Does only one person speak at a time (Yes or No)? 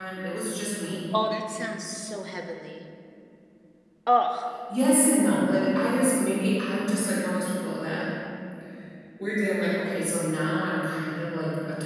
Yes